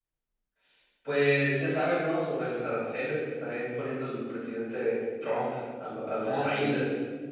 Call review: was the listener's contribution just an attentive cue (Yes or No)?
No